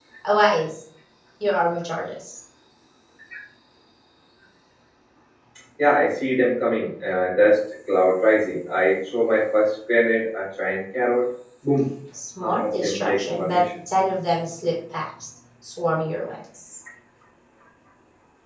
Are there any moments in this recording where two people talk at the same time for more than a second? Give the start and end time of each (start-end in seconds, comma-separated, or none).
12.4-13.6